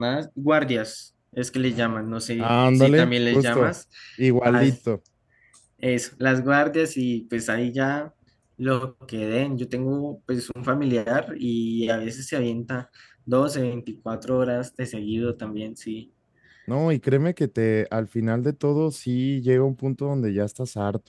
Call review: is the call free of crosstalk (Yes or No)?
No